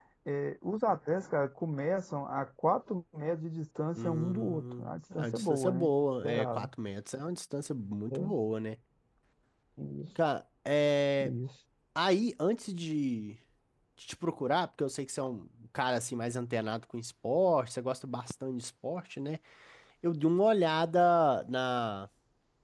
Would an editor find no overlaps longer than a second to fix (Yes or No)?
No